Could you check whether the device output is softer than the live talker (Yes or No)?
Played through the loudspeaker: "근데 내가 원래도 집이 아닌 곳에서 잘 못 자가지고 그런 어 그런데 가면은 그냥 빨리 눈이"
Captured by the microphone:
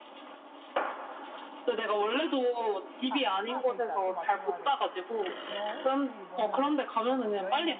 No